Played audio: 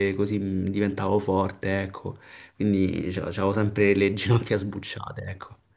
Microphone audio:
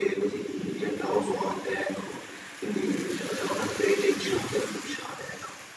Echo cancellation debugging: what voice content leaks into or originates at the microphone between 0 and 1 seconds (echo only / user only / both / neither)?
echo only